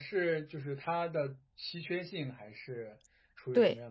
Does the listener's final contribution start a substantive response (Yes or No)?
Yes